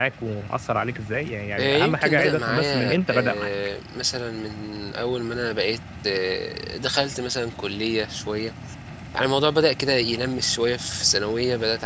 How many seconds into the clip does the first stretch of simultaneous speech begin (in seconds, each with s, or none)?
1.6 s